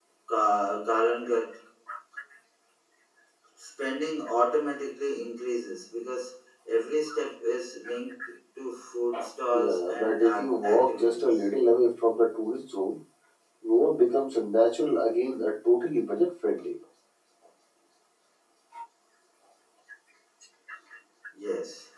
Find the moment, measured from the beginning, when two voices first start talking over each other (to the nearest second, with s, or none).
10 s